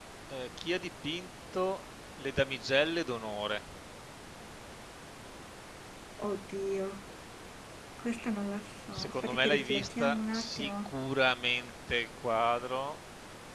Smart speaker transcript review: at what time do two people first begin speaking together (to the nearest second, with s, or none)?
9 s